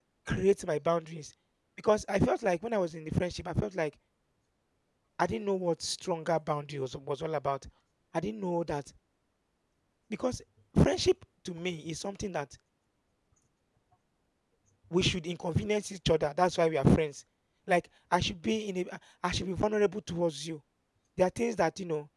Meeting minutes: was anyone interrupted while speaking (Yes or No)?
No